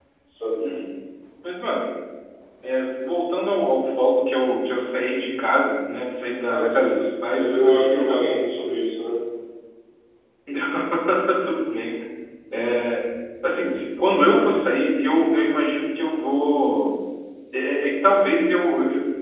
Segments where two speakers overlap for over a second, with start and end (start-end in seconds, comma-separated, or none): 6.5-8.2